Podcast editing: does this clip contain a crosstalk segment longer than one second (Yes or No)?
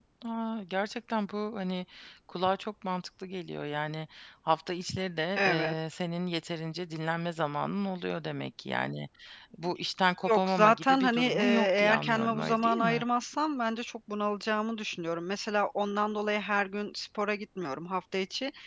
Yes